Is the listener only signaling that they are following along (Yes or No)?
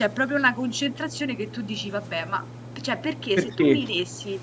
Yes